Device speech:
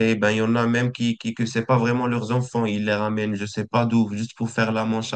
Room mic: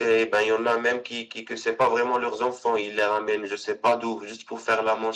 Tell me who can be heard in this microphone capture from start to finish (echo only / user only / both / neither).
echo only